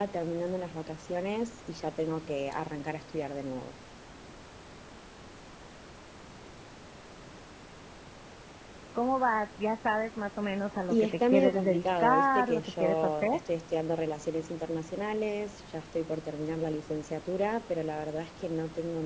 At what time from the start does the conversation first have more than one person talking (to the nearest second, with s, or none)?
11 s